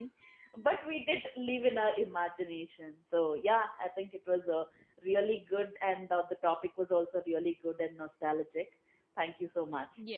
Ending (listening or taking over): taking over